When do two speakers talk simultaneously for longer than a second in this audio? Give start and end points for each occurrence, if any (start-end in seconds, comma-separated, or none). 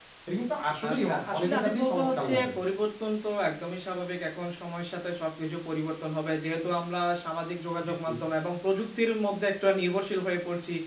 0.9-2.5